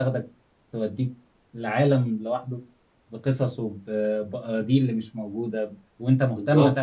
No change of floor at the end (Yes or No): Yes